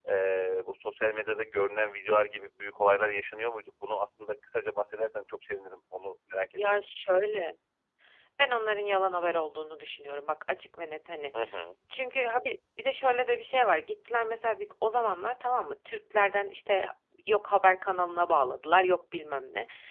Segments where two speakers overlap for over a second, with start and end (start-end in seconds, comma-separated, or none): none